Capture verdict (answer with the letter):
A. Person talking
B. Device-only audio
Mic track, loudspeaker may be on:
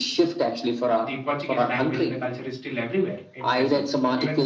A